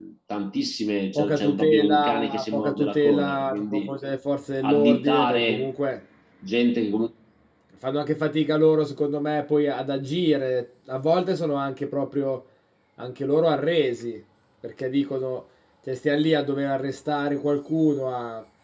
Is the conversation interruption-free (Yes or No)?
No